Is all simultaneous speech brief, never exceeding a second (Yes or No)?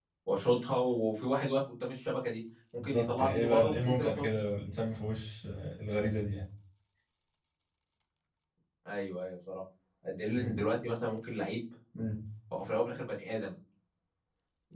No